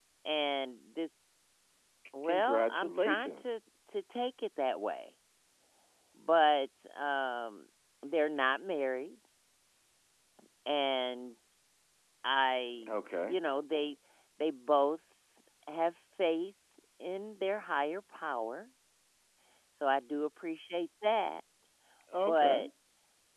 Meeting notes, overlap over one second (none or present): present